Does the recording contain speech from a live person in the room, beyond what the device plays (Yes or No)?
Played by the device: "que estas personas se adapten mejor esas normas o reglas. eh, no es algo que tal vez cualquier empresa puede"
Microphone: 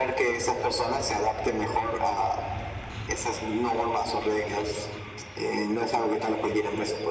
No